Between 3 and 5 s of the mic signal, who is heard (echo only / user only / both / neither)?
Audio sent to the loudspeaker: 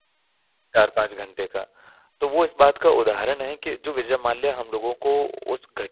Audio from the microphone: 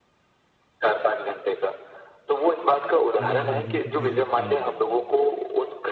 both